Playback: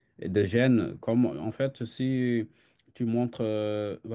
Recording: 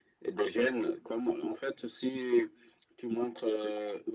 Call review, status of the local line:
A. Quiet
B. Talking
A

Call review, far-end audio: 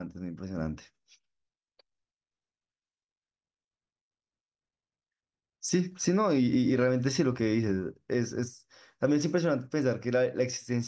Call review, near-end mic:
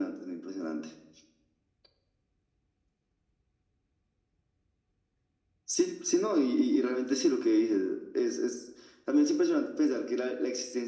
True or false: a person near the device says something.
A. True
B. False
B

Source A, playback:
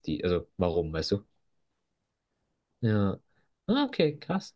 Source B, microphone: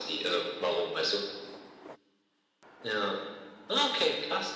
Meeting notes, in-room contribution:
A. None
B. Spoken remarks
A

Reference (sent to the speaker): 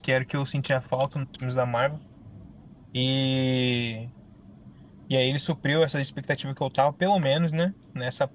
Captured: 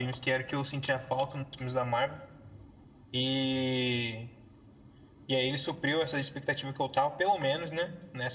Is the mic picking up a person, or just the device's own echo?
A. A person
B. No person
B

